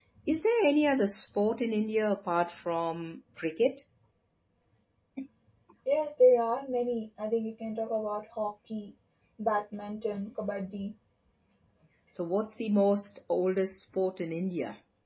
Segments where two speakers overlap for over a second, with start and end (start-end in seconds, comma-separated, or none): none